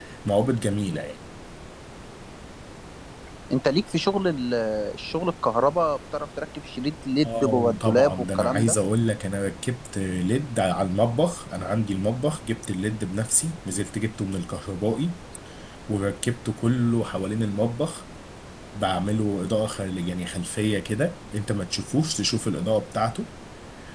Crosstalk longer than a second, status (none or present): present